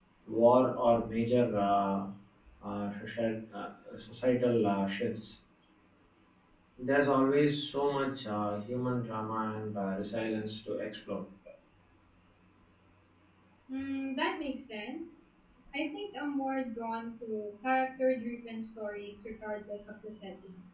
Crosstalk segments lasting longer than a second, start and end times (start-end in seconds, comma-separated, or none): none